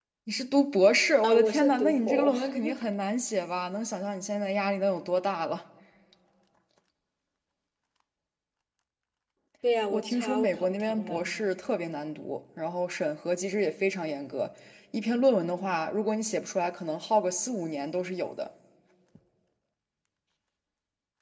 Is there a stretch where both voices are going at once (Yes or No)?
Yes